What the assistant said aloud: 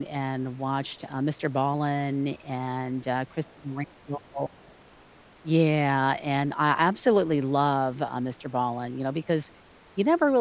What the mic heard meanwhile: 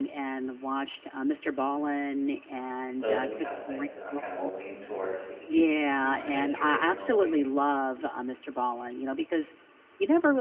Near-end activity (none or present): present